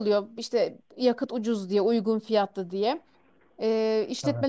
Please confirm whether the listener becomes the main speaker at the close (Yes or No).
No